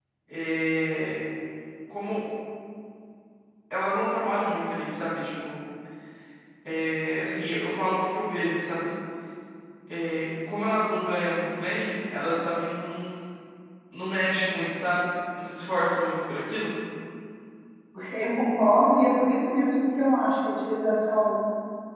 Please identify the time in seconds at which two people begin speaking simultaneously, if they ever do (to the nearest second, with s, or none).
none